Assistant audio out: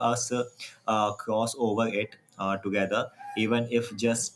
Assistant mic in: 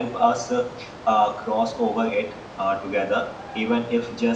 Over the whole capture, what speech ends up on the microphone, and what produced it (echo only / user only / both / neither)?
echo only